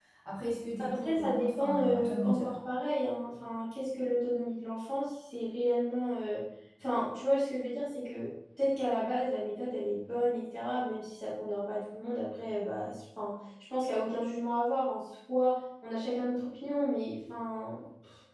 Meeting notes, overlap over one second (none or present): present